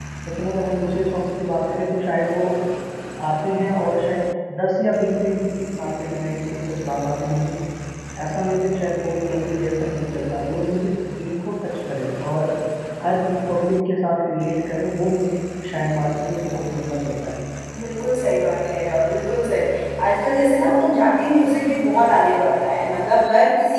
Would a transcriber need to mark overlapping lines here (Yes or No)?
No